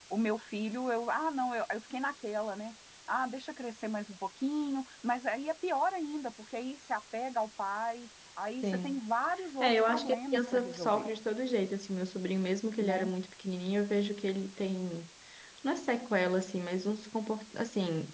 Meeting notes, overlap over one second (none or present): present